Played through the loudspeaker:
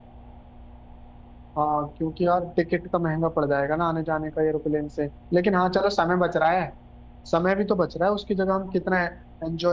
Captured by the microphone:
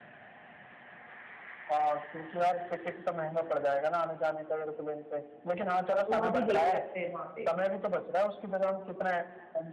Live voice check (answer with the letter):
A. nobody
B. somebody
B